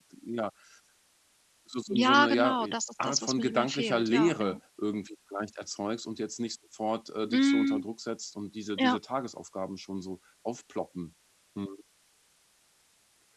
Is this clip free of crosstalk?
No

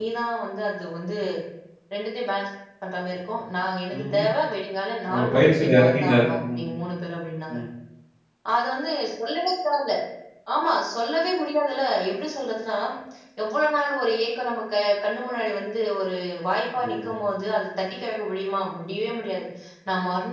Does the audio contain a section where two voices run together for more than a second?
Yes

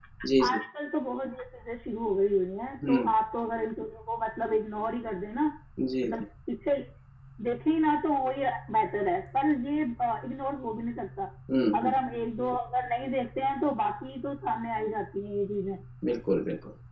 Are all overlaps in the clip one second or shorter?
Yes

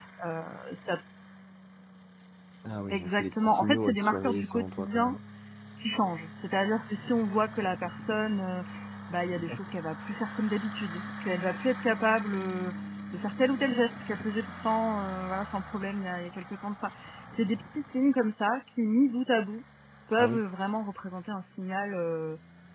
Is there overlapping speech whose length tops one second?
Yes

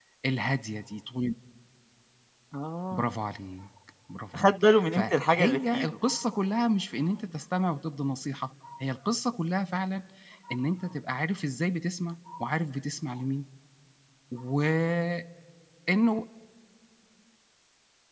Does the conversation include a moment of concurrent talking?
Yes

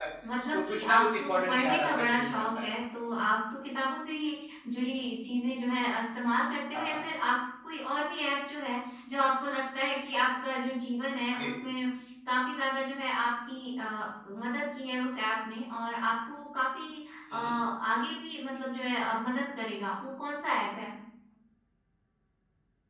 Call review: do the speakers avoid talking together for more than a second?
No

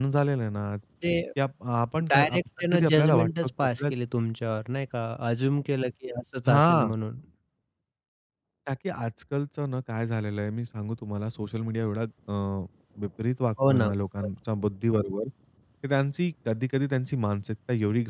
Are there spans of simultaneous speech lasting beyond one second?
Yes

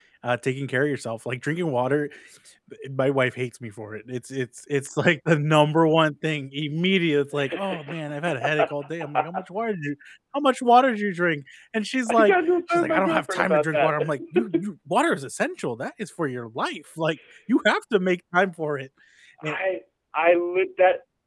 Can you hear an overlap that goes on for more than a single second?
Yes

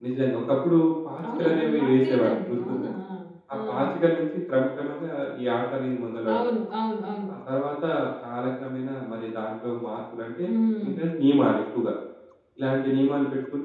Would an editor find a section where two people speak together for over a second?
Yes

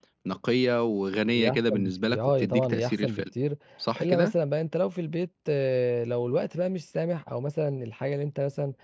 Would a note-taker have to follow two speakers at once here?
Yes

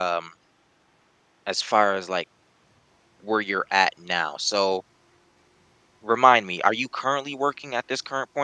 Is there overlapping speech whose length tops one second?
No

